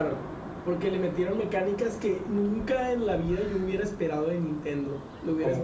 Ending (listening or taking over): listening